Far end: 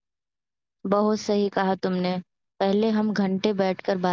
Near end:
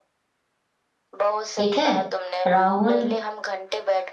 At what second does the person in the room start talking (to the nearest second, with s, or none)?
2 s